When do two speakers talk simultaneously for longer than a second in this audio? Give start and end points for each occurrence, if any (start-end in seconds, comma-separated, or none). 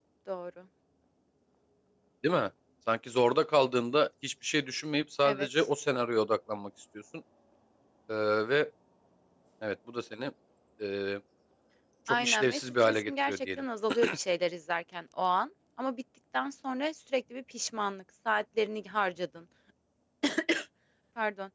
12.1-13.6